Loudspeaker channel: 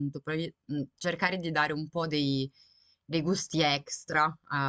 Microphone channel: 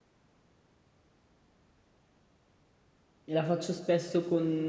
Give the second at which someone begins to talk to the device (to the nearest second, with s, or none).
3 s